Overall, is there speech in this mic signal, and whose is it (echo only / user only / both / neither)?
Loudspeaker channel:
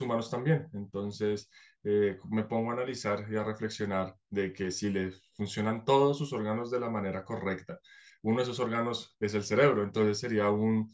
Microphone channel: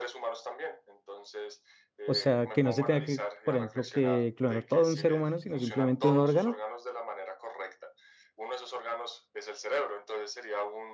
both